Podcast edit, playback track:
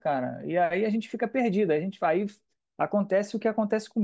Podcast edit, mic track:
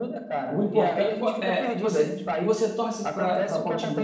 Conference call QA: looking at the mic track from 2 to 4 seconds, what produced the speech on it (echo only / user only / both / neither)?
both